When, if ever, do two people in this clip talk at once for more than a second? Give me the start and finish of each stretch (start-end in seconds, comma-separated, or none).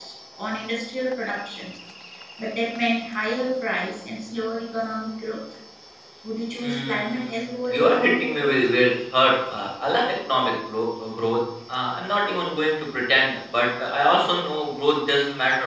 6.6-8.5